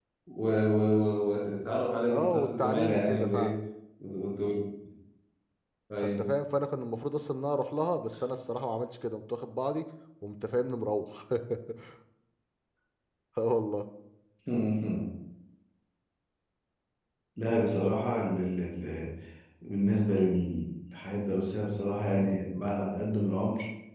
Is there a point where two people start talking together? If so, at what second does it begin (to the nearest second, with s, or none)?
2 s